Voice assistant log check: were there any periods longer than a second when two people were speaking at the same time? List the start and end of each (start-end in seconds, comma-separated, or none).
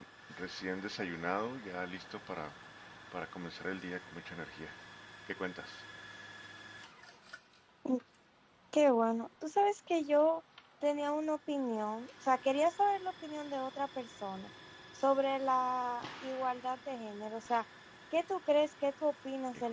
none